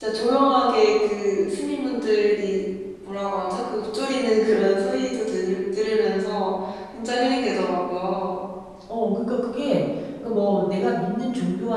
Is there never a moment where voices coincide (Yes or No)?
Yes